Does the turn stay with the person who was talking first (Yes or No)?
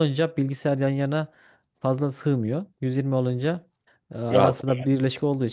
Yes